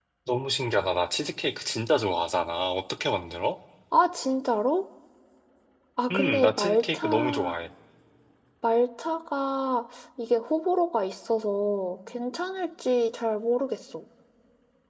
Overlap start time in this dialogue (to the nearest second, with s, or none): 6 s